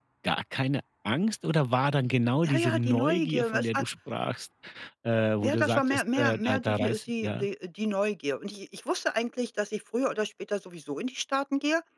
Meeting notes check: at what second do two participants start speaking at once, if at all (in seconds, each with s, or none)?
2.4 s